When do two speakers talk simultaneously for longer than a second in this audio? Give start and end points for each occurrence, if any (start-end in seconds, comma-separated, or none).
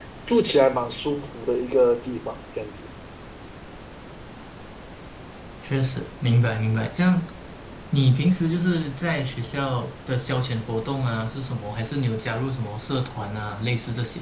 none